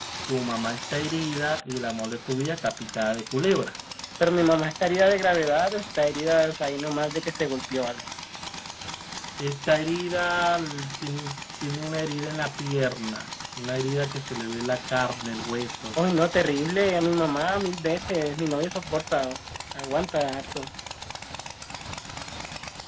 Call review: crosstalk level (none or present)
none